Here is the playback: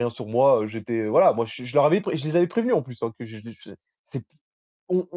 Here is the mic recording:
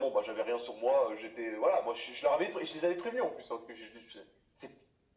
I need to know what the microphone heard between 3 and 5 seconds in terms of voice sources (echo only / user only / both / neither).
echo only